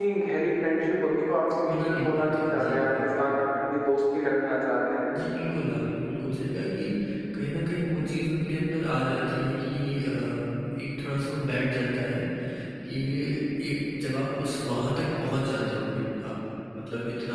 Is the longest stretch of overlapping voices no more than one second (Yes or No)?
No